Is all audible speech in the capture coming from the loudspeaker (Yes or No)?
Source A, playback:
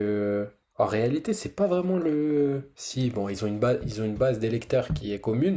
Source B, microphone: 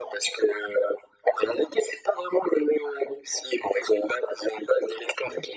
Yes